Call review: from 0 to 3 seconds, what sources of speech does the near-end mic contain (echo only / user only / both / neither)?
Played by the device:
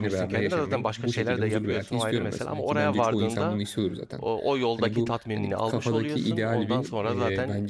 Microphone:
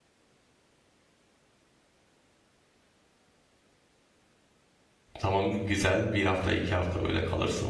neither